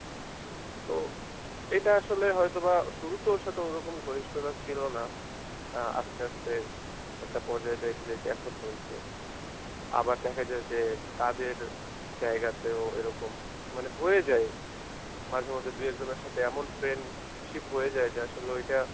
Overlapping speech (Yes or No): No